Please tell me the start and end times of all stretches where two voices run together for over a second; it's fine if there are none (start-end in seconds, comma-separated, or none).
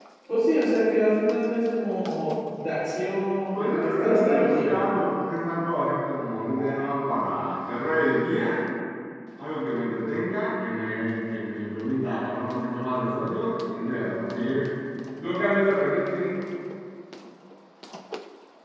3.5-4.8